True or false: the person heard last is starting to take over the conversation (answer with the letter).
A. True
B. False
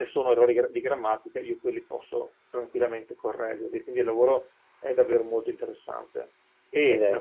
B